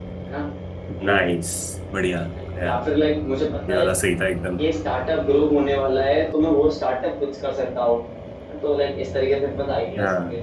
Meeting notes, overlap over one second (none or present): none